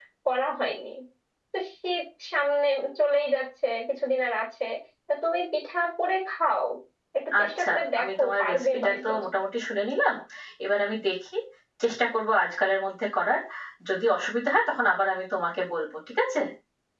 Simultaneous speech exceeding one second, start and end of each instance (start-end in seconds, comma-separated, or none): 7.4-9.1